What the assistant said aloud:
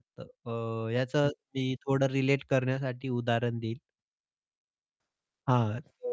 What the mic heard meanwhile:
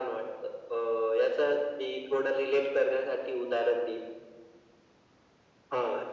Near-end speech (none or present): none